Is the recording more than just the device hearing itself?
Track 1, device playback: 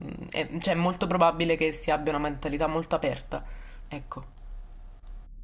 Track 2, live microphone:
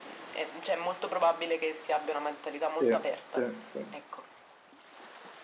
Yes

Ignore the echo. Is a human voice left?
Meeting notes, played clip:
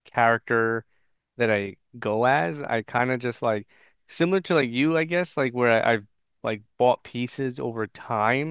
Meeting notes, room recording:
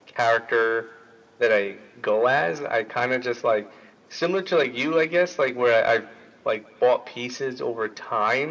No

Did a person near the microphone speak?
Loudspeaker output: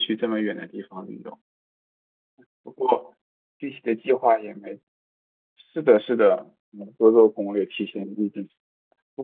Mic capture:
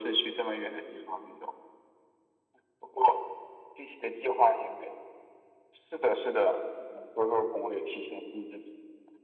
No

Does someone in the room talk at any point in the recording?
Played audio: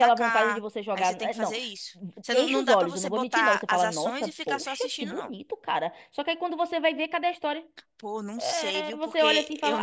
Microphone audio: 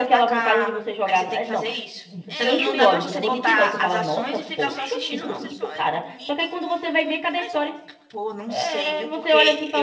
Yes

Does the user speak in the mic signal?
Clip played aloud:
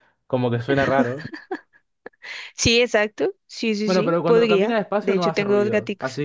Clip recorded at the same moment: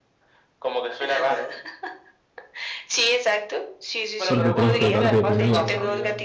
Yes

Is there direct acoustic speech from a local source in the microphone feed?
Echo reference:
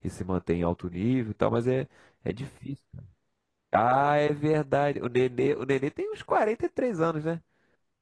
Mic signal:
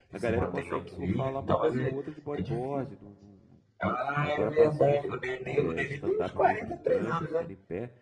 Yes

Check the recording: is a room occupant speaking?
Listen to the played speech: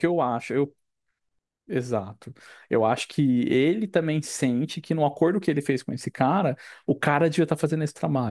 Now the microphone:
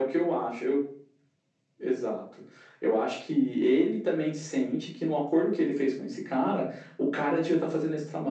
No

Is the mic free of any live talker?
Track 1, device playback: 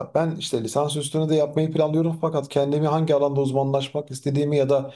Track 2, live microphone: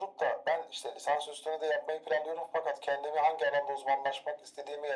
Yes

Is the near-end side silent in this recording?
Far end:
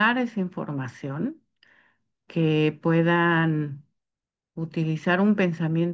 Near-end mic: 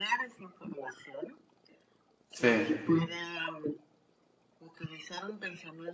No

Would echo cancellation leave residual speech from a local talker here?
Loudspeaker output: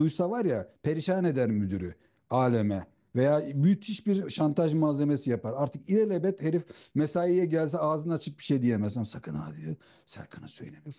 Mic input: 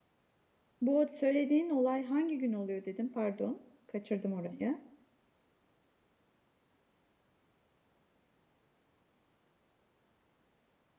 Yes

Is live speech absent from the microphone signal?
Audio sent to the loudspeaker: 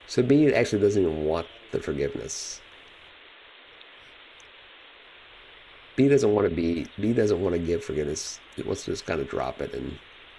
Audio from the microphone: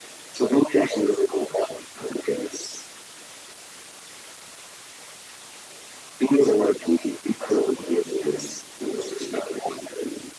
Yes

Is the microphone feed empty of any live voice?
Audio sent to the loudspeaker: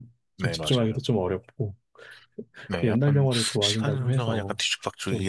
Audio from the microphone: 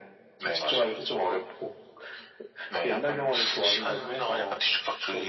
Yes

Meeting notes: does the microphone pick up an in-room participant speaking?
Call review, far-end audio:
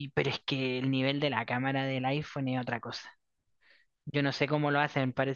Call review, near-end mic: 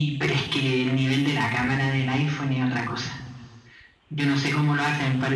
No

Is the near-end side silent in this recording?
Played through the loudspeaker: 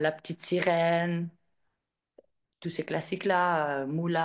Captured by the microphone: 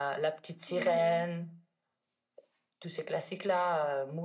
No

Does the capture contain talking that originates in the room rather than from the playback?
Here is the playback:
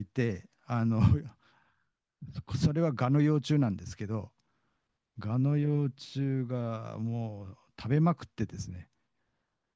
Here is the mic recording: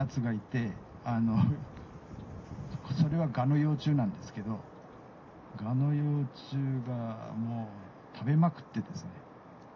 No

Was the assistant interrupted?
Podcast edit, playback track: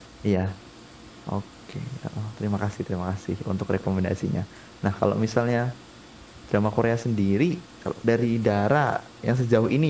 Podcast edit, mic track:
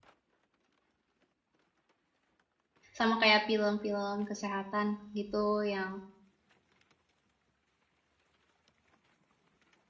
Yes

